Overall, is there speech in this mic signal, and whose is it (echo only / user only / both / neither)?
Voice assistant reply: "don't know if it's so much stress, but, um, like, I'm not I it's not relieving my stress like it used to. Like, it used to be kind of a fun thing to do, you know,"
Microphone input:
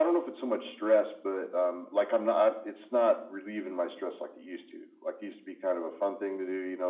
echo only